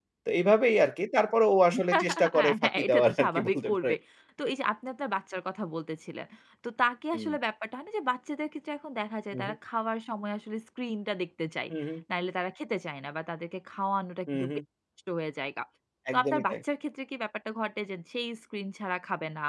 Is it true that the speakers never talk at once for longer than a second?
No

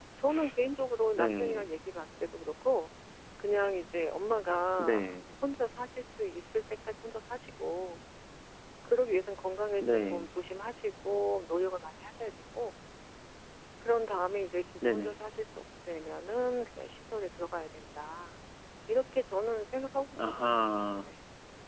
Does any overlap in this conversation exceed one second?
No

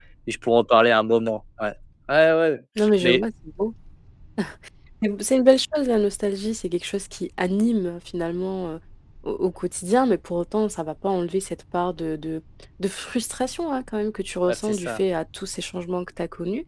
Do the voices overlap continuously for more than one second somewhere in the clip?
No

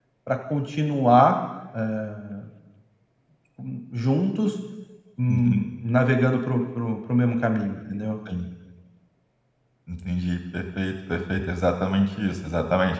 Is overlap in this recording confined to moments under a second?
Yes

